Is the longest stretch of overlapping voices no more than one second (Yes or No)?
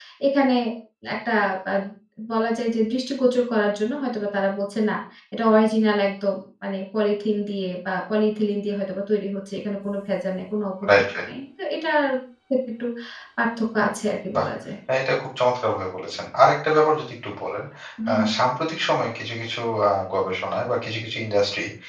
Yes